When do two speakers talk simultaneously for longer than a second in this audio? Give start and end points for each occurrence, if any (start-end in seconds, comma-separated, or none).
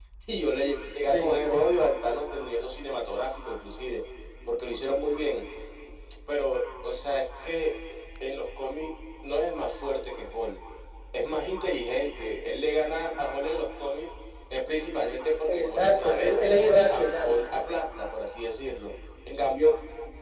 15.5-17.4